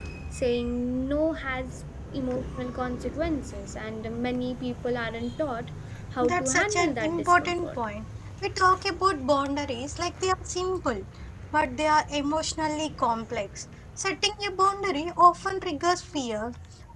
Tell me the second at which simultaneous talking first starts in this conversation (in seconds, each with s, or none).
6.2 s